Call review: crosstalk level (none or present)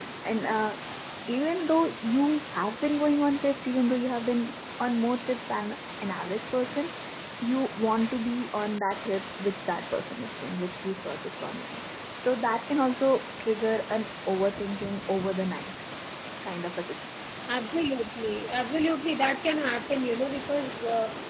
none